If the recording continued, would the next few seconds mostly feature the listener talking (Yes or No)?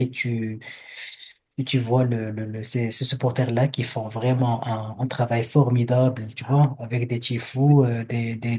No